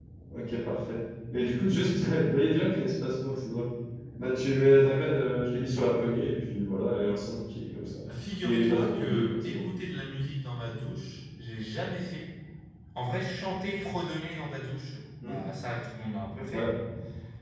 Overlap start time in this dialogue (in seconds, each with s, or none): 8.4 s